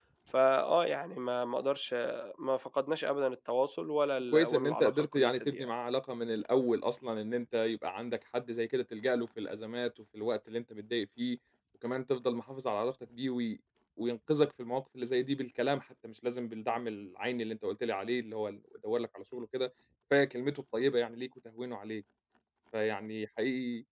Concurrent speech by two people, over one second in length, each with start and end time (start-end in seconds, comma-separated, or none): 4.3-5.7